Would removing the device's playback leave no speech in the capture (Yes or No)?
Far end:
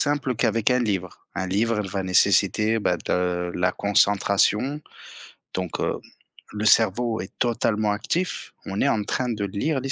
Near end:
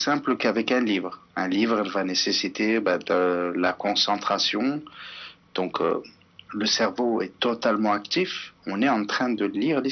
Yes